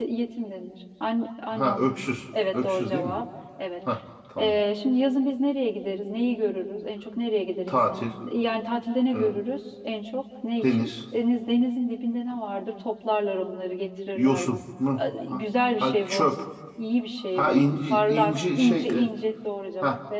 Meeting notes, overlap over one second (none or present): present